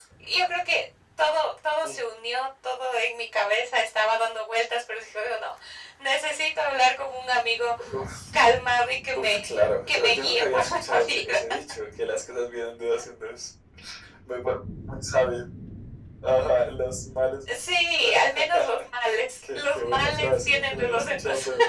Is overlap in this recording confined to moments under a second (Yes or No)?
No